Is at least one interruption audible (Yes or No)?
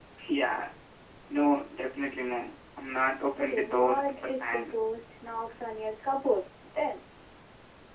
Yes